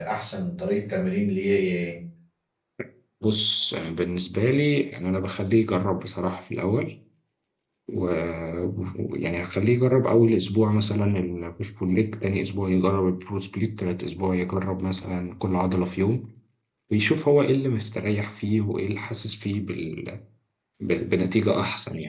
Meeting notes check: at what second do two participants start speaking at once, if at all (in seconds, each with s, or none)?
none